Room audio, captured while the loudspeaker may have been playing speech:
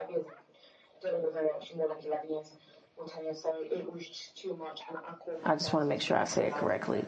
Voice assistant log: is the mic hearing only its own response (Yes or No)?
No